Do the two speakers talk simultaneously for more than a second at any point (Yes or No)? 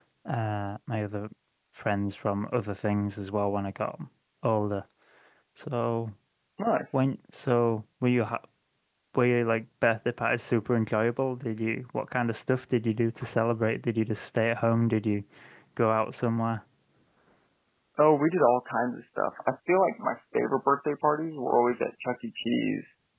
No